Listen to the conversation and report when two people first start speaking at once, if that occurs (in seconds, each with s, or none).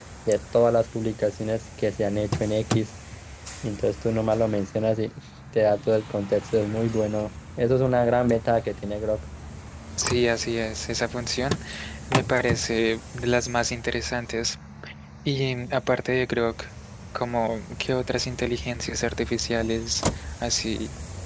none